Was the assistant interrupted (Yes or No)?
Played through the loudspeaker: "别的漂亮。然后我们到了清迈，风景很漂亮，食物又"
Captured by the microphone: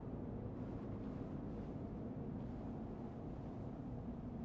No